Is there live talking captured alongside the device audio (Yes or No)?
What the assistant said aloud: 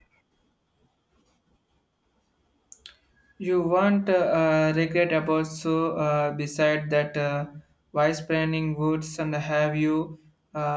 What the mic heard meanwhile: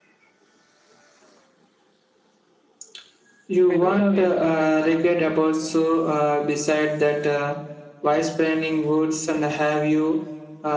Yes